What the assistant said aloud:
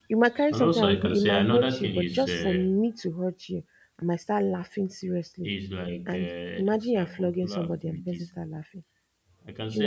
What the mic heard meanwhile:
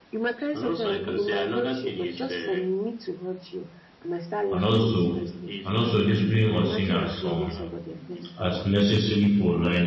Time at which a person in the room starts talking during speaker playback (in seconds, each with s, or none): 4.5 s